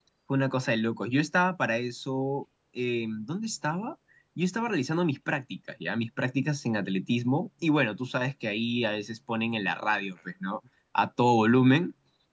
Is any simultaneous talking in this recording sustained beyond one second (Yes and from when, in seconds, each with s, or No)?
No